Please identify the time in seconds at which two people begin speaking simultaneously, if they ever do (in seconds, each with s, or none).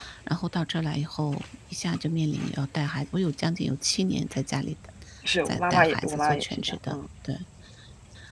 5.4 s